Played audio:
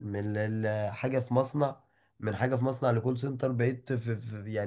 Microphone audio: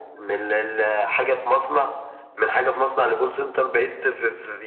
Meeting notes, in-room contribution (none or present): none